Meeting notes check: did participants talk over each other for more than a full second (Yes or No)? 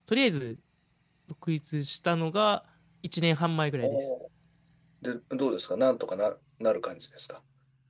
No